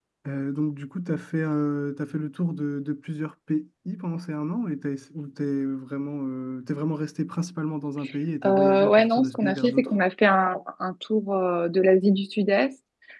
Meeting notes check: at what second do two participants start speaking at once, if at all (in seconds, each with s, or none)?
8.4 s